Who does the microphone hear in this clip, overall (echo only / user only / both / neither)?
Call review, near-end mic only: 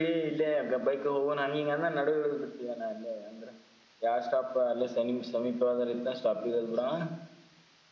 echo only